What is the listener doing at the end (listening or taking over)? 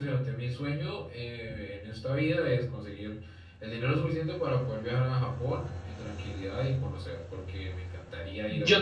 taking over